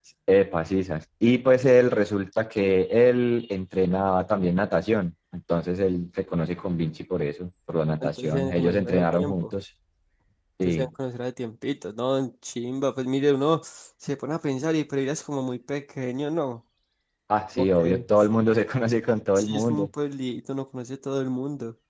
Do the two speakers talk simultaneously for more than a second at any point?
Yes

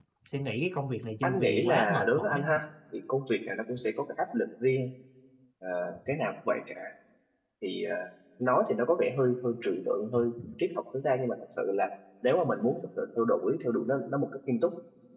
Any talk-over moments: Yes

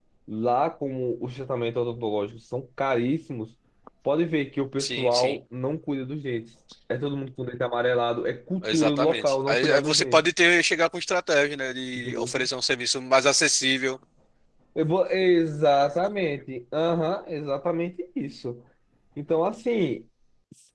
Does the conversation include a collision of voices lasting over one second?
Yes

